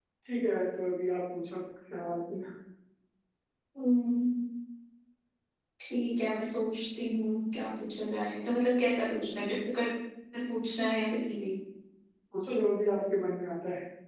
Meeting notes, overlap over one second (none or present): none